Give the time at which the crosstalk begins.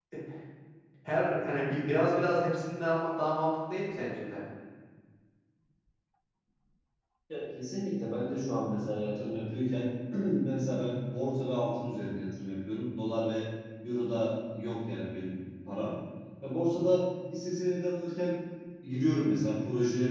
none

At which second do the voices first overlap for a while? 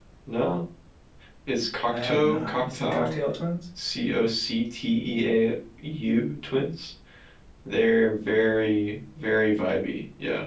1.9 s

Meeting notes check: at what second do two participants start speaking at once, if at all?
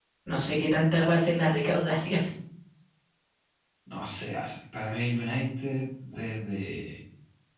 none

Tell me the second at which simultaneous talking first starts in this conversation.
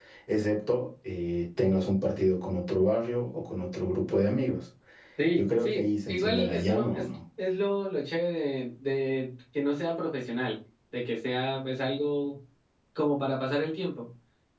5.3 s

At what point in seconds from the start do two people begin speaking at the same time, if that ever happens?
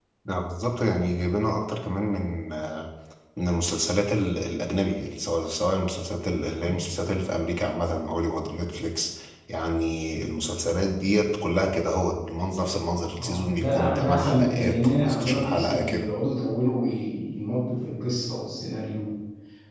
13.1 s

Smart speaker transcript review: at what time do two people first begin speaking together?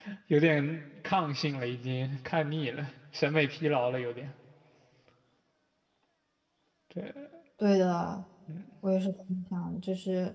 none

